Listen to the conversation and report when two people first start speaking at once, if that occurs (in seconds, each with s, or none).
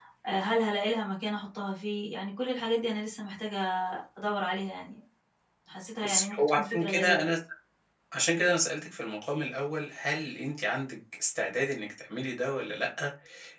6.0 s